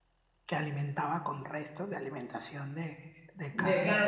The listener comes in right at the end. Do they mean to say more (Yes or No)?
Yes